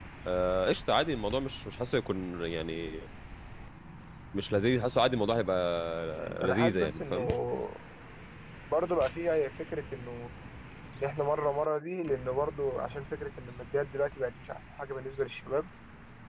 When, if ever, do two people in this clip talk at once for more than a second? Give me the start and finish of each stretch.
6.0-7.3

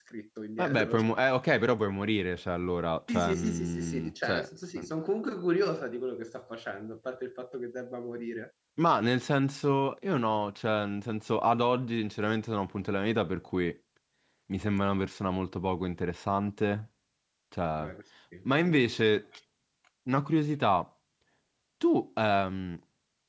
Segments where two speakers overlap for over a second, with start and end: 3.1-4.5

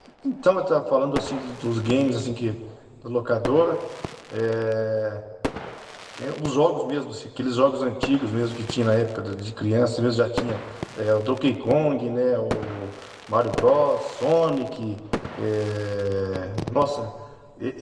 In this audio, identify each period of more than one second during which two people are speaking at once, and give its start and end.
none

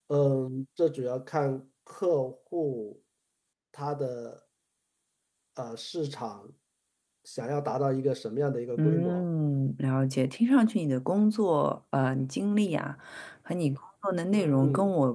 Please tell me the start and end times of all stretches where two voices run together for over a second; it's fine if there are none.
none

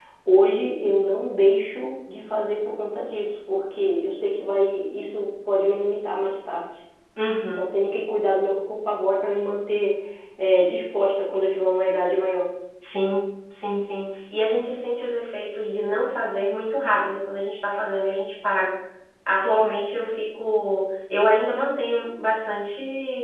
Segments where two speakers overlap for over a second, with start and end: none

